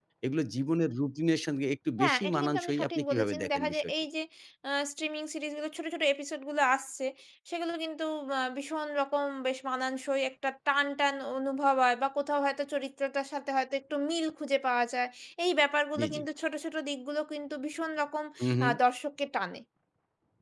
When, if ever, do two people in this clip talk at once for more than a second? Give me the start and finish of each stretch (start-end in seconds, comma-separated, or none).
2.0-3.9